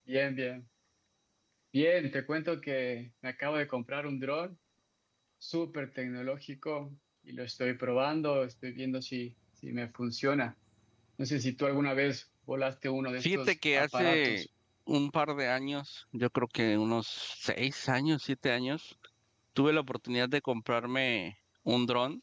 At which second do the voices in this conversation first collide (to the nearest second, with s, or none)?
13 s